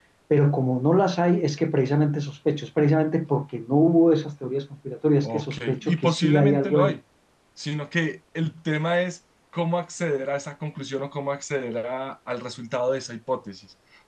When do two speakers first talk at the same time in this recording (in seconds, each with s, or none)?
5.2 s